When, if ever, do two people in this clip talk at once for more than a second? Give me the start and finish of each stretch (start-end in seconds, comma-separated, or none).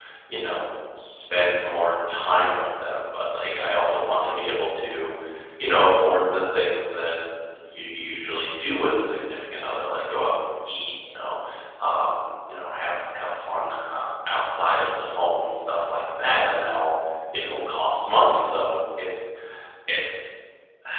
none